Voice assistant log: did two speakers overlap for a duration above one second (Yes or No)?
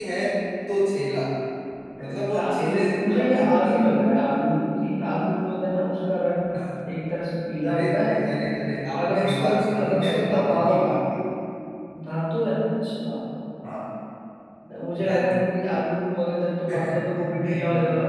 Yes